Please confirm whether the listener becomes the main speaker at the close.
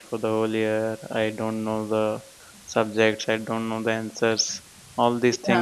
No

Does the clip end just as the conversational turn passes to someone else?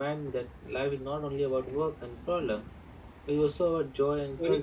Yes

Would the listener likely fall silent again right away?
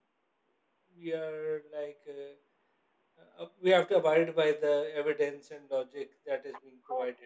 No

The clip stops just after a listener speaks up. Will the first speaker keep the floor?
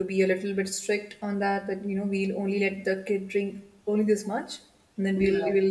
Yes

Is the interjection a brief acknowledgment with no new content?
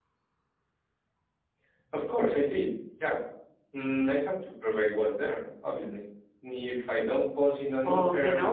No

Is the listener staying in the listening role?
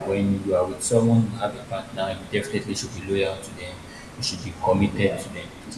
Yes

